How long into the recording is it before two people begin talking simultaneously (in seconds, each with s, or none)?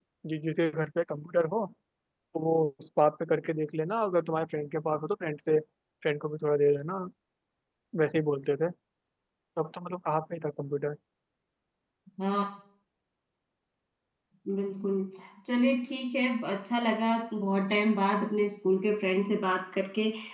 none